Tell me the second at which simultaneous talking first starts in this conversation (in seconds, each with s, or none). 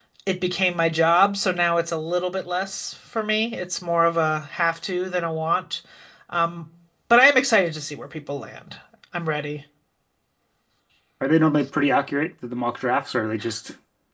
none